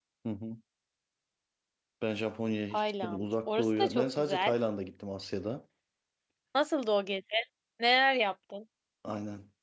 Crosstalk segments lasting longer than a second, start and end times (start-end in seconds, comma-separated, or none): 2.7-4.5